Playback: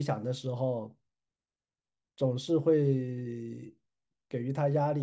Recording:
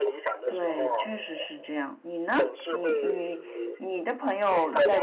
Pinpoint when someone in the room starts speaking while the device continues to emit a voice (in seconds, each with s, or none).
0.4 s